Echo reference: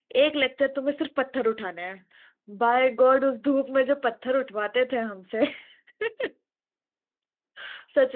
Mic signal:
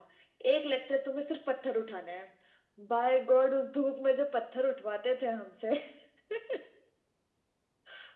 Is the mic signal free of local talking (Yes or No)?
Yes